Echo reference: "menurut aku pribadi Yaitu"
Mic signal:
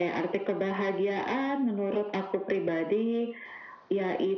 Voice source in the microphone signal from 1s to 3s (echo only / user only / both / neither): echo only